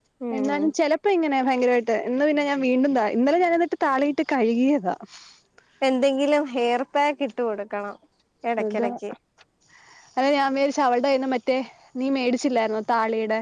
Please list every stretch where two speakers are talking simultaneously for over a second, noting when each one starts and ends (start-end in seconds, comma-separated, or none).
none